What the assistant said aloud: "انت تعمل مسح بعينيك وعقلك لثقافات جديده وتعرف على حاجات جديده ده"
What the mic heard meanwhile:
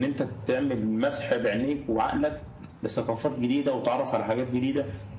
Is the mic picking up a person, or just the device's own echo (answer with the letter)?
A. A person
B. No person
B